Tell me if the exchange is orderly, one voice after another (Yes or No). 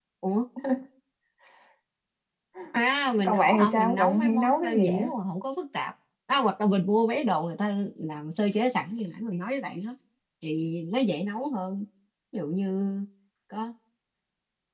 No